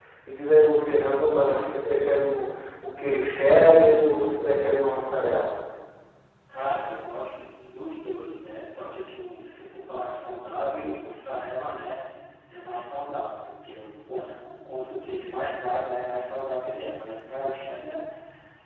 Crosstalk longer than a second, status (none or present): none